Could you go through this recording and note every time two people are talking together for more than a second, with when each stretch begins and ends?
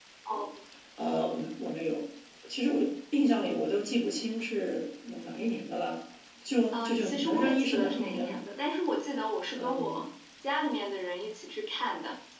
6.7-8.4

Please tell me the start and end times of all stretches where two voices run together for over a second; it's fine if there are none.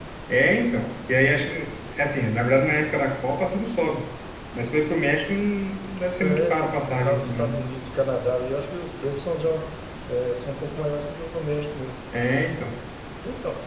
6.2-7.6

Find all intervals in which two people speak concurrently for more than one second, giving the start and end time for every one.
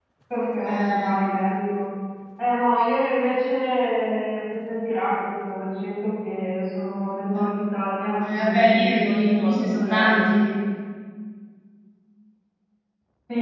8.2-10.5

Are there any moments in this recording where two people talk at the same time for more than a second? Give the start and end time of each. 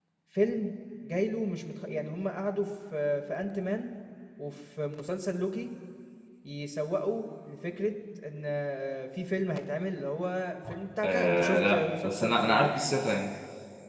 11.0-12.9

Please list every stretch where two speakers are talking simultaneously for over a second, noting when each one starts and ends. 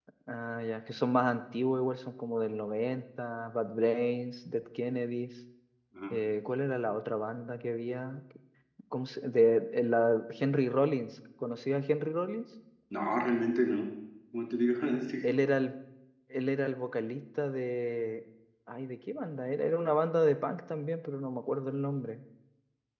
none

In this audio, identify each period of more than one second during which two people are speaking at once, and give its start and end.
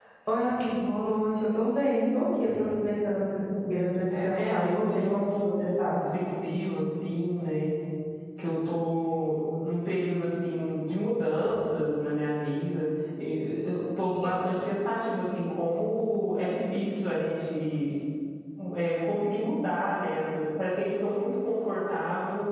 4.2-6.0

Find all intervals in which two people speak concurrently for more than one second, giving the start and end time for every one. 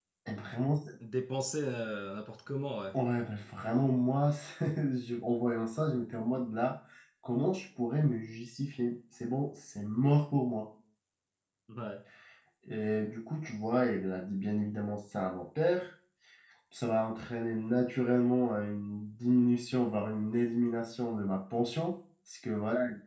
none

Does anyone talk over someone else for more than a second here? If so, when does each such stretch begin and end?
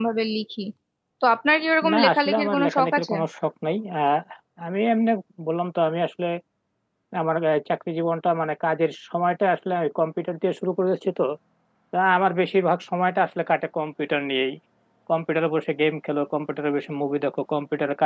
1.9-3.1

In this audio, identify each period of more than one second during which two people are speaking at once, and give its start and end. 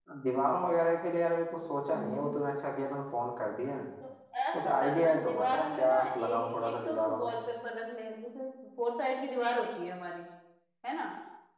4.5-7.3

